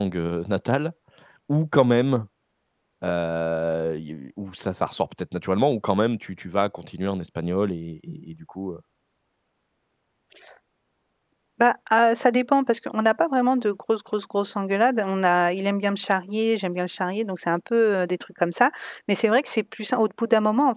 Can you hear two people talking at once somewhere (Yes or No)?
No